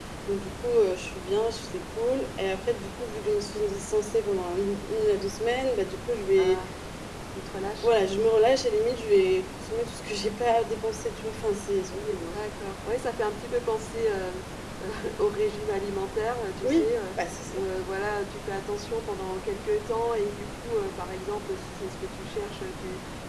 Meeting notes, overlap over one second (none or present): none